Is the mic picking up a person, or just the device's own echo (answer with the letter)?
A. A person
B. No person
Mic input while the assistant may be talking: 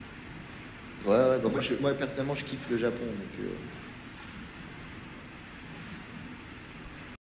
A